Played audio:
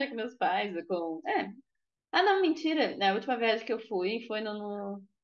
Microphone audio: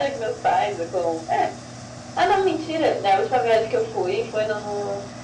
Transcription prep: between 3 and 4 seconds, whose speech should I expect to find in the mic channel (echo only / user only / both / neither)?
echo only